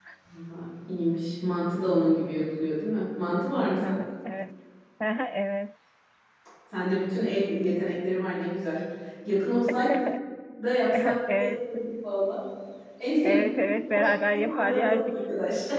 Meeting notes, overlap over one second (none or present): present